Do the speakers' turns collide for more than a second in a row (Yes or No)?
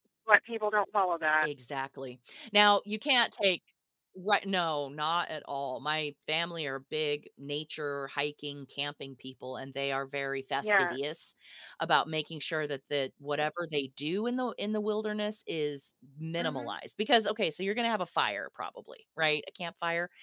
No